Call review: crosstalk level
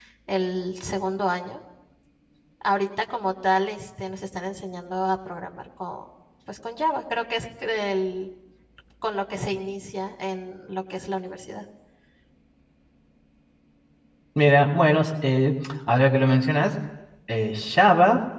none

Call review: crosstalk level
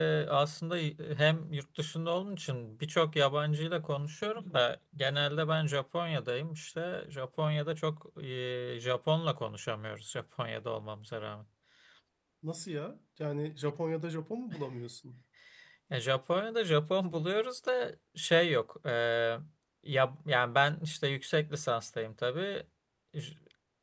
none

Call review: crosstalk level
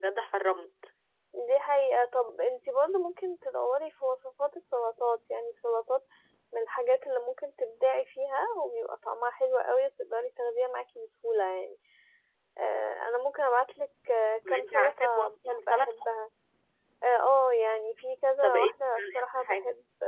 present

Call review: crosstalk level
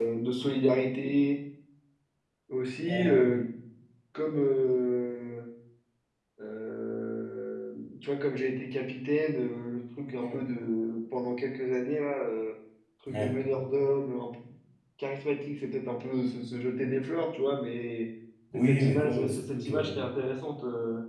present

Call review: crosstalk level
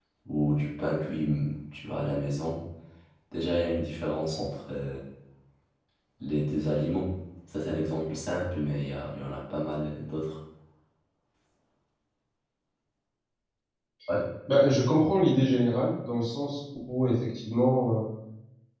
none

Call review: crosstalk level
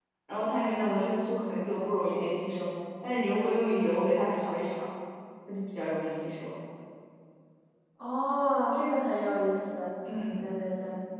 none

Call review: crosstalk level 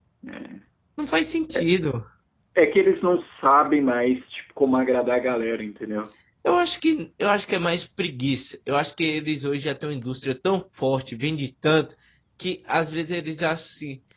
none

